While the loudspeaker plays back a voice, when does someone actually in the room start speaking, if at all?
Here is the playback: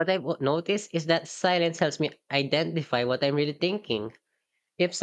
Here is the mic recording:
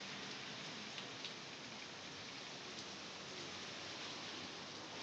none

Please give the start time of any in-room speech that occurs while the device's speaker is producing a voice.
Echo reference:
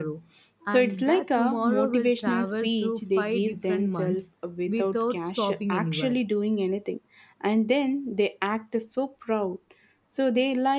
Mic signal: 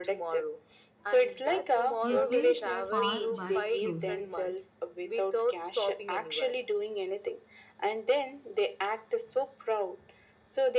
2.0 s

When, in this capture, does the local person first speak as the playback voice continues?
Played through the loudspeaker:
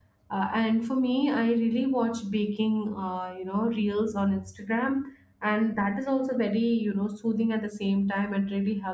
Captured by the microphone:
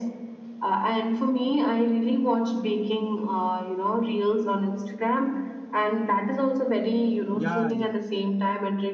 7.3 s

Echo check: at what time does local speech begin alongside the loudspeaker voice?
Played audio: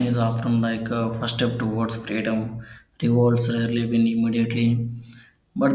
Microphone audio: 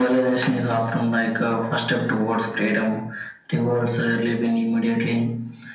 none

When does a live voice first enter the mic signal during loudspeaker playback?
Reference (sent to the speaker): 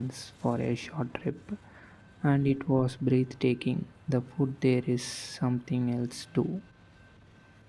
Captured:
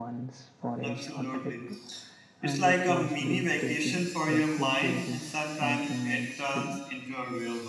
0.8 s

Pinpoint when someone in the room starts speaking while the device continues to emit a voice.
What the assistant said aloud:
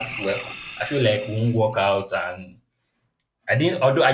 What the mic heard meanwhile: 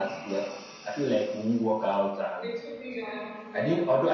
2.4 s

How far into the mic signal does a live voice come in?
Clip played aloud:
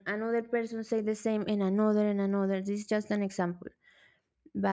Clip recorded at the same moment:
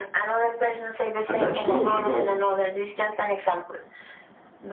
1.3 s

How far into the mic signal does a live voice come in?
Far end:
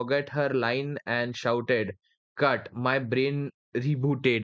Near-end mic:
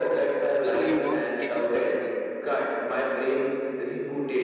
0.6 s

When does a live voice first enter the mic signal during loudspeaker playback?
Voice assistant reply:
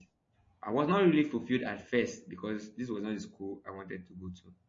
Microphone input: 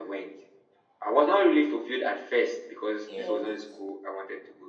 3.1 s

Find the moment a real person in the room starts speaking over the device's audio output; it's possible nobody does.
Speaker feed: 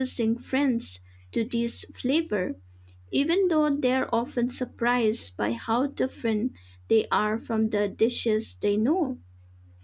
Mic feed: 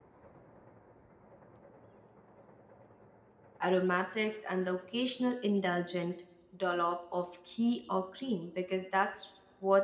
3.6 s

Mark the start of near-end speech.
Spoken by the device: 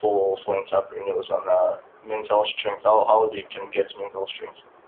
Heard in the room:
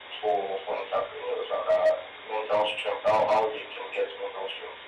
none

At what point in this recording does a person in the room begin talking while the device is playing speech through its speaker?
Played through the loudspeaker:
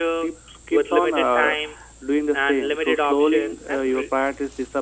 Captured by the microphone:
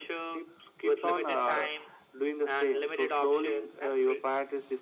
none

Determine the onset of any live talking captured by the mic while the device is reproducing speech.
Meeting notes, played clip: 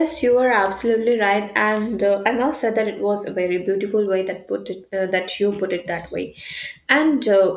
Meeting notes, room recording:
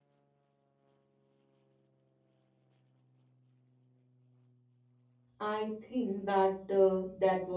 5.4 s

